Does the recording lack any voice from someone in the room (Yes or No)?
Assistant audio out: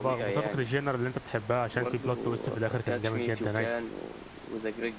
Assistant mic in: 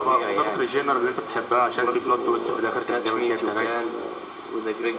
No